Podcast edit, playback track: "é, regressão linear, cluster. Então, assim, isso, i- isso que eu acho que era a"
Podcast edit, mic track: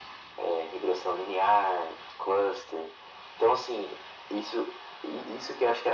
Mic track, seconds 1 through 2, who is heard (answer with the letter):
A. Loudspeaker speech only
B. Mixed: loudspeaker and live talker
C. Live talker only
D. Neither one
A